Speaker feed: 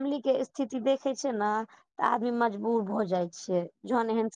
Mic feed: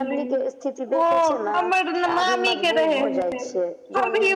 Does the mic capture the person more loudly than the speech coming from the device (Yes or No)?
Yes